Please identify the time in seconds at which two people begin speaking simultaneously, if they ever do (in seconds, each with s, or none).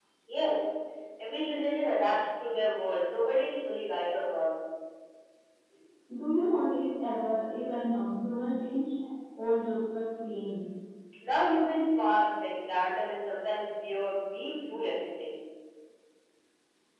none